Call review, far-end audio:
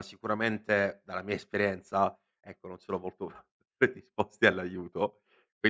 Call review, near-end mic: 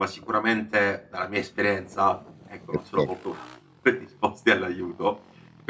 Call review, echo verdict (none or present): present